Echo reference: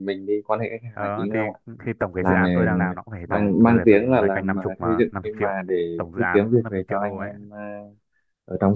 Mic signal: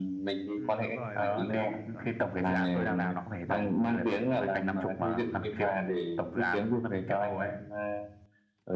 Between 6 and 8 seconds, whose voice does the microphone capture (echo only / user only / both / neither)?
echo only